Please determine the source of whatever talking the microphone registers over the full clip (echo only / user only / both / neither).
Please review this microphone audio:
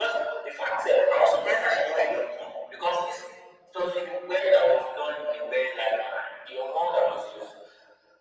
echo only